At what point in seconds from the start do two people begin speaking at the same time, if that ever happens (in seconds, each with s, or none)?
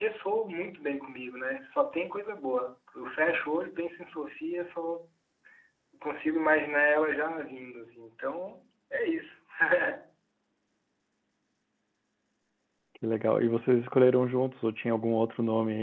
none